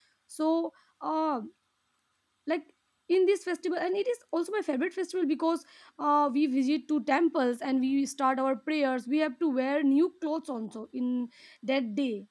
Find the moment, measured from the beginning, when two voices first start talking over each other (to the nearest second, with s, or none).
none